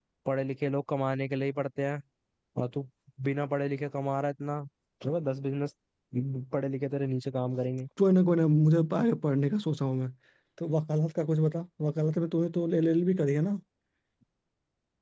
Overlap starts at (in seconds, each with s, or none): none